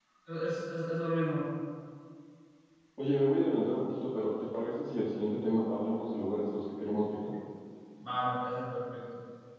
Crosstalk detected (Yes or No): No